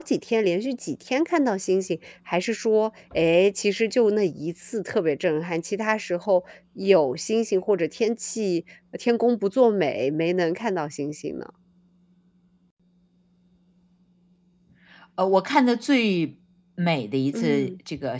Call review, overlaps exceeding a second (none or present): none